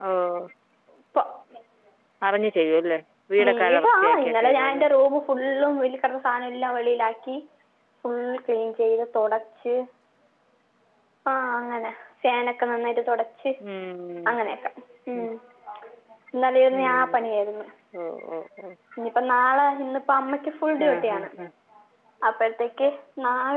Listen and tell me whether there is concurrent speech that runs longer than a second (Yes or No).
Yes